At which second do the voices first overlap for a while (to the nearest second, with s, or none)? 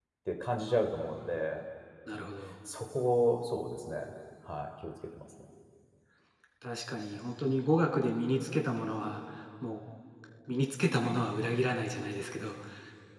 none